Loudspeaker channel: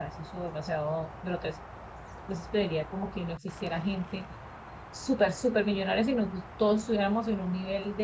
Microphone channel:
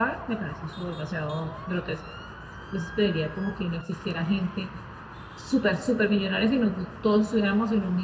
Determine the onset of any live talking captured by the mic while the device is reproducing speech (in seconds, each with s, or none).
none